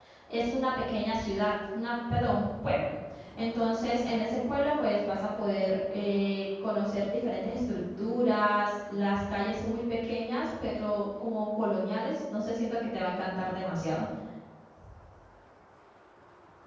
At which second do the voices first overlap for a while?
none

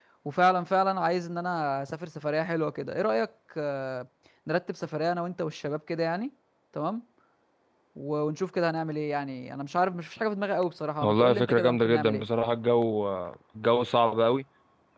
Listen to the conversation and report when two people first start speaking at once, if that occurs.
11 s

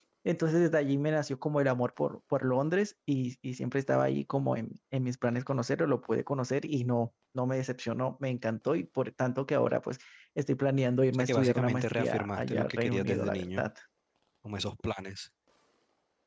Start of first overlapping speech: 11 s

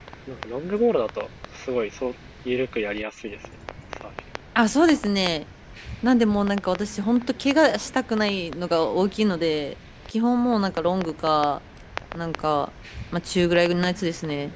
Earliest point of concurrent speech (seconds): none

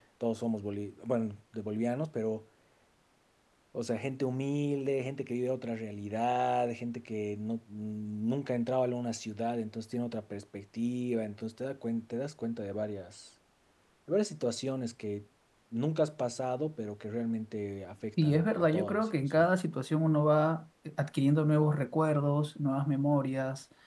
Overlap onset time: 18 s

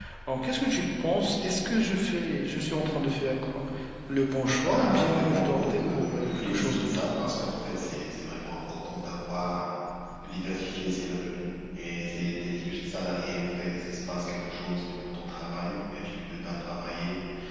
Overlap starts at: 5 s

